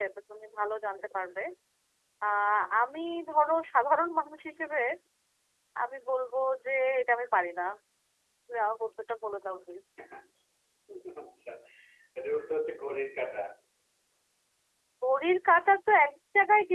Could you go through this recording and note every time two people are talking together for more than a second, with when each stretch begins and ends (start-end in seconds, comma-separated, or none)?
none